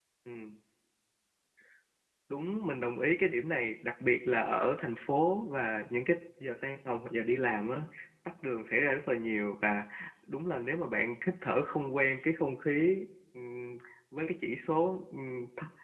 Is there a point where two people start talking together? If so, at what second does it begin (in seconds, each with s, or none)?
none